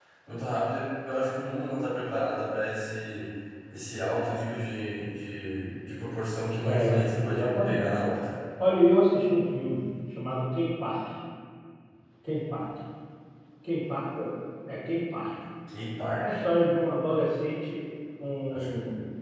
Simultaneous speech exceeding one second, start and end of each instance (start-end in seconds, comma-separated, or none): 6.6-8.2